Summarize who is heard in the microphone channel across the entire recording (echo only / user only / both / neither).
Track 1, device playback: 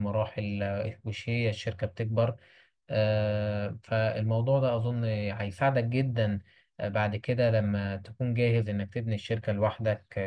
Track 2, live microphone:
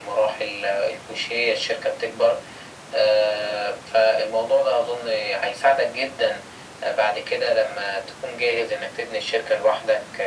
echo only